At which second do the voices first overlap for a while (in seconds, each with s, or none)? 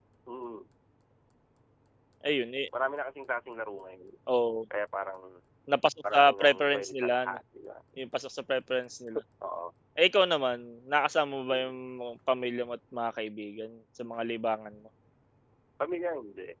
6.1 s